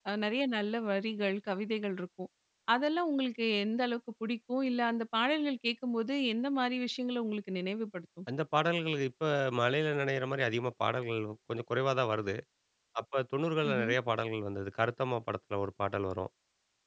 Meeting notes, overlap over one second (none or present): none